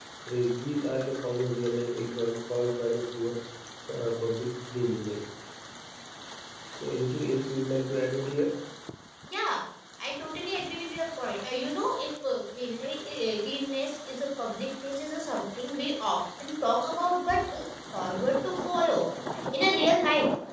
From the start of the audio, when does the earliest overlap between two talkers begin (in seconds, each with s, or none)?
none